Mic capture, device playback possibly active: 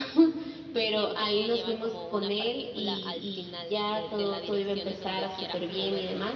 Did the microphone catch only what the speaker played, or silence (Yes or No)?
No